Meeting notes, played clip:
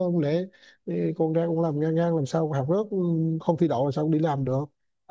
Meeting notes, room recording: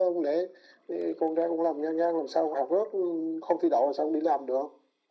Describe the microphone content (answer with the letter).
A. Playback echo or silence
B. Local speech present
A